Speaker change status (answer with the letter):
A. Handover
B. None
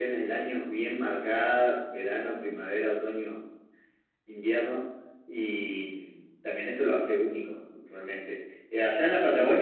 B